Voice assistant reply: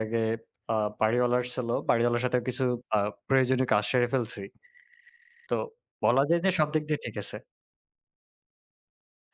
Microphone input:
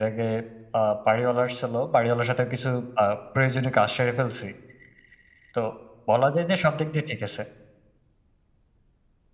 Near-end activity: none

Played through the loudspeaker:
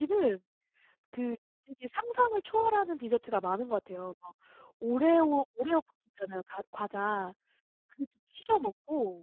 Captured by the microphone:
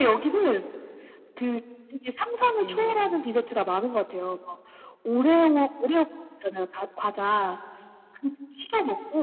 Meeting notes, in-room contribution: present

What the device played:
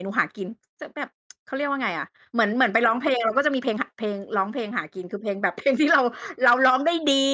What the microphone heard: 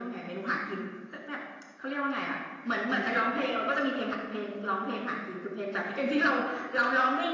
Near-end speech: none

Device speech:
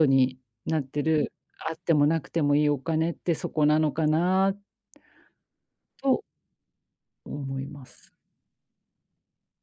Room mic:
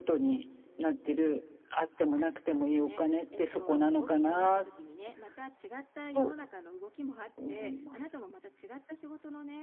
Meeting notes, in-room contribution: present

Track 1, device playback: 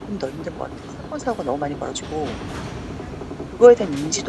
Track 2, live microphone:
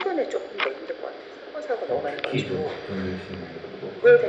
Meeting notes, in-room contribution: present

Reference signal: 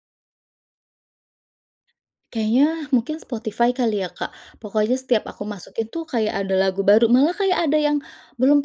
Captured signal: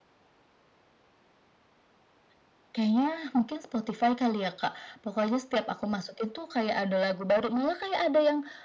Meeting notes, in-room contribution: none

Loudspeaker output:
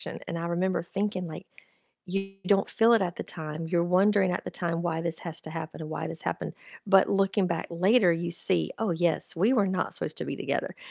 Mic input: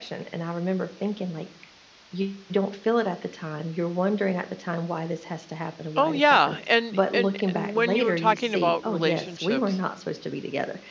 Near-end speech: present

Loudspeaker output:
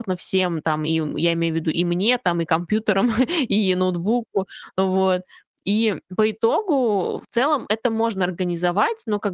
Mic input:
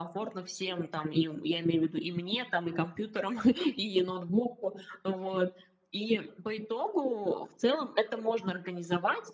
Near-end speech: none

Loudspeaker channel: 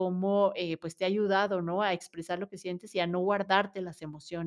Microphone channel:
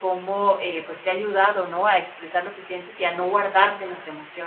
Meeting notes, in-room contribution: none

